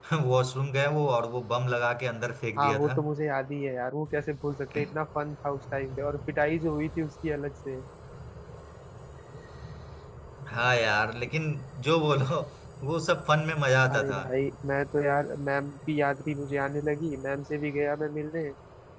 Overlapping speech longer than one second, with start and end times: none

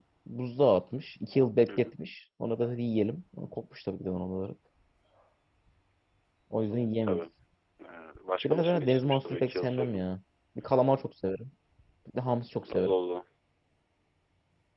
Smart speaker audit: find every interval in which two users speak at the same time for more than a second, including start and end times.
8.4-10.0

